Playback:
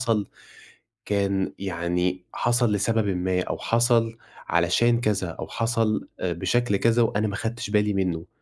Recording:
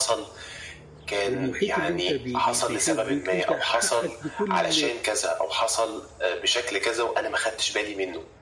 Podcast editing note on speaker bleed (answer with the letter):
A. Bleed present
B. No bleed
A